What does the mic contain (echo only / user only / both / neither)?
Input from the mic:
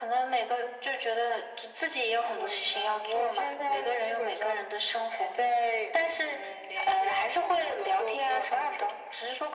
echo only